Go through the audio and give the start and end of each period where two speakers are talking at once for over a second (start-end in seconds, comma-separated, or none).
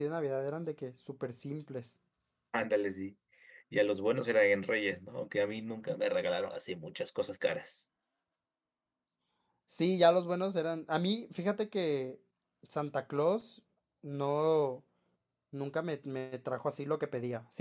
none